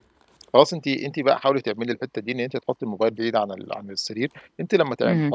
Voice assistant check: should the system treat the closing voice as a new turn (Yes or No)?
No